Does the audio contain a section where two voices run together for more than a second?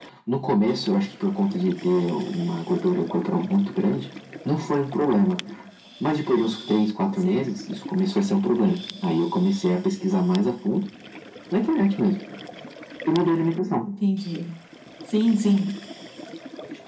No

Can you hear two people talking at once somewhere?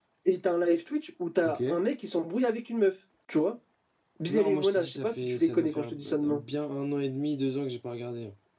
Yes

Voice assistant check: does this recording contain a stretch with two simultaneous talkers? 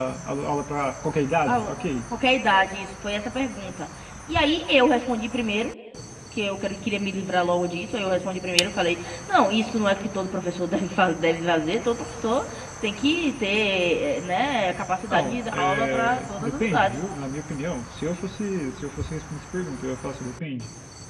Yes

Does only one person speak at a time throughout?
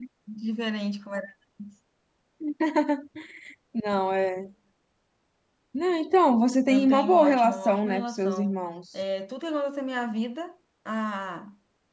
No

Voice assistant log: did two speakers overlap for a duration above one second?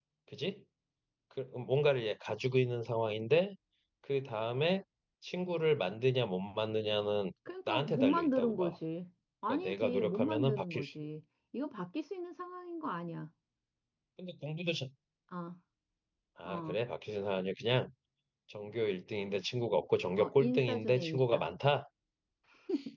Yes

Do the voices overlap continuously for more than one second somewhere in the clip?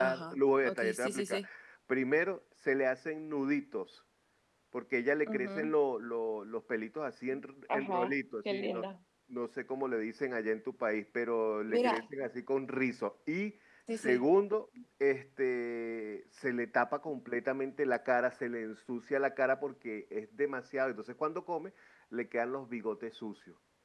Yes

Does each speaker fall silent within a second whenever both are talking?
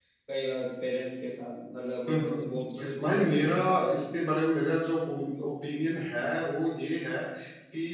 No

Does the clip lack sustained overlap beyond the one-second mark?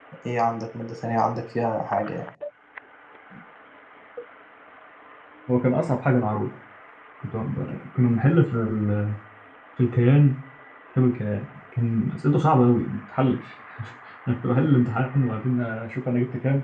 Yes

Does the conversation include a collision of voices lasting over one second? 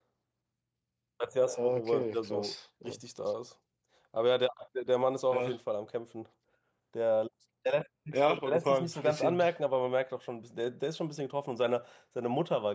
Yes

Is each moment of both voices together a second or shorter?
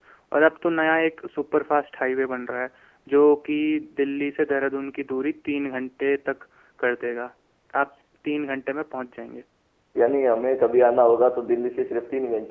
Yes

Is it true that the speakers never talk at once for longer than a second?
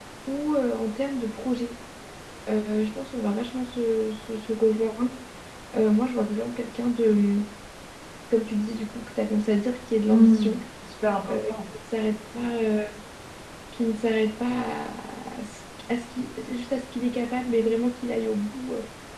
Yes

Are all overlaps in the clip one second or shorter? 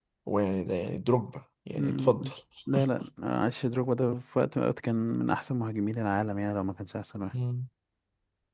Yes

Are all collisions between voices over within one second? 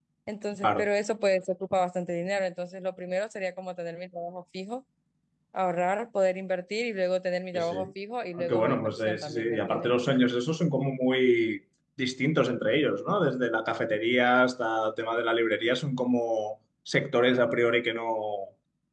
No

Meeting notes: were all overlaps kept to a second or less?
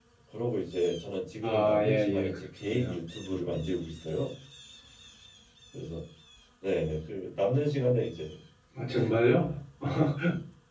No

